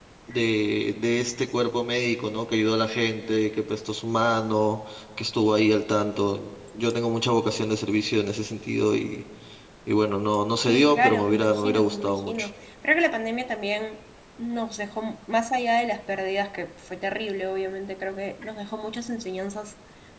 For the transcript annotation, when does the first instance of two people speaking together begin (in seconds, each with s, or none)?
10.6 s